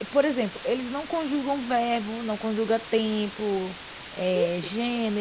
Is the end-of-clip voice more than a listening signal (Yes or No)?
No